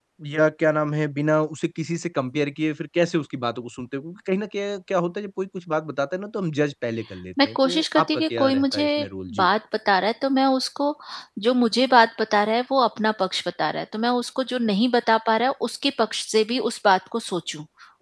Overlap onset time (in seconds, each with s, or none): 7.4 s